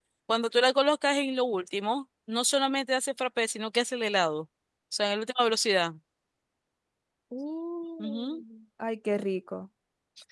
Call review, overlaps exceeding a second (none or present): none